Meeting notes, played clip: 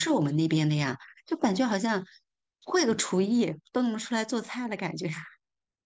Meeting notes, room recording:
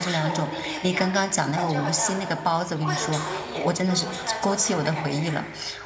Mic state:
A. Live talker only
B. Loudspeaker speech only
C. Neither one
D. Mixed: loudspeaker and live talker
D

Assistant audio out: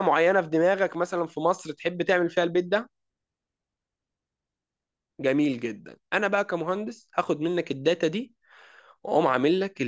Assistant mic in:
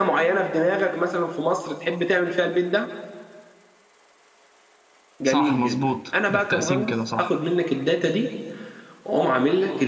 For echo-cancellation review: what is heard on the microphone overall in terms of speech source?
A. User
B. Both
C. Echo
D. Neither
B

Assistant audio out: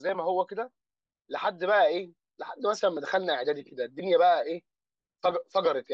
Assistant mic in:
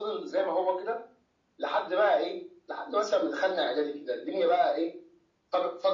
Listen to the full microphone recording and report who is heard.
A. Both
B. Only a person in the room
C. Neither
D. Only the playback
D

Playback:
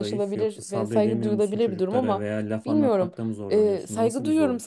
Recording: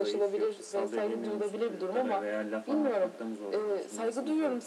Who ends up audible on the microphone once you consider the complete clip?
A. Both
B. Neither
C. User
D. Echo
D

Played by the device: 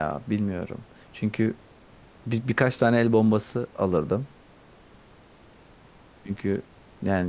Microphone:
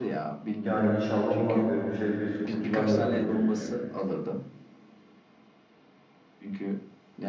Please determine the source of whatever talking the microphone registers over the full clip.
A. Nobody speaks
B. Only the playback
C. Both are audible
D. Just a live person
C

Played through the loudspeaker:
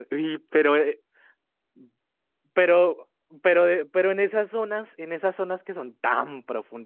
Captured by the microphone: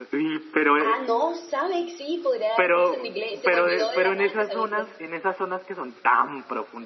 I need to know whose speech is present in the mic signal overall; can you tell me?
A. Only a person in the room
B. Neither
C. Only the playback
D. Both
D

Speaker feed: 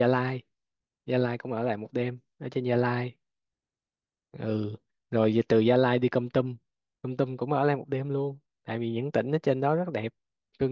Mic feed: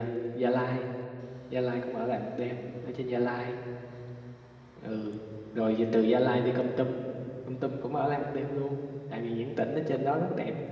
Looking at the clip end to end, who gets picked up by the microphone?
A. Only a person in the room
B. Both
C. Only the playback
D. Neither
C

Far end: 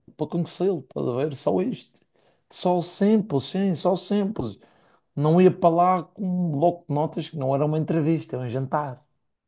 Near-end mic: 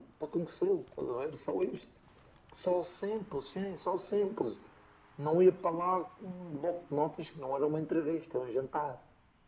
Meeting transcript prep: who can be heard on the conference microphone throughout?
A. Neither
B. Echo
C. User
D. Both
B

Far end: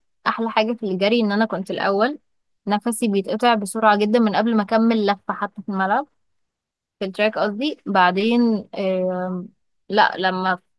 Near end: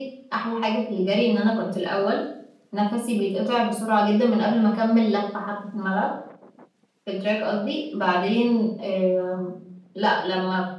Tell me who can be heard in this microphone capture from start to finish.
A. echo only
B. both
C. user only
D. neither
A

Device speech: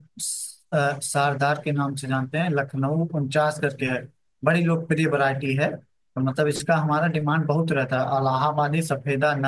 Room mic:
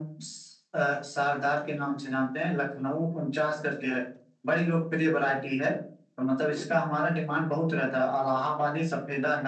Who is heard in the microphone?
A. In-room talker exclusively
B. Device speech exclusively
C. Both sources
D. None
B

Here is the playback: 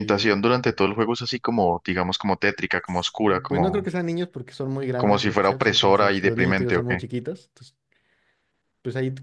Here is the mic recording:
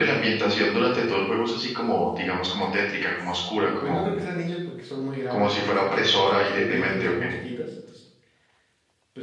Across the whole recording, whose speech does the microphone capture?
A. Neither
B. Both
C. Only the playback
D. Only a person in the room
C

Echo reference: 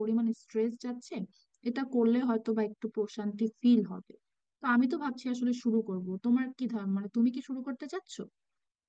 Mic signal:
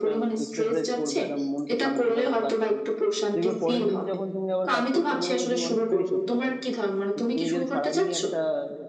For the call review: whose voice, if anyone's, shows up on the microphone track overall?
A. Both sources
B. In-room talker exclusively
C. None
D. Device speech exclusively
A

